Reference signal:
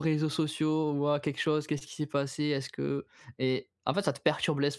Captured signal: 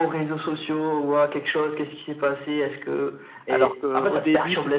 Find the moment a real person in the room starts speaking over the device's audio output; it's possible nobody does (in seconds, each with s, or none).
3.5 s